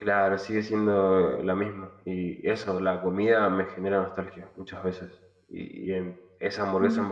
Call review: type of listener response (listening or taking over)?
listening